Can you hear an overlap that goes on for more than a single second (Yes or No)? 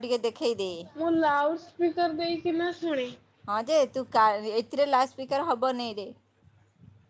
No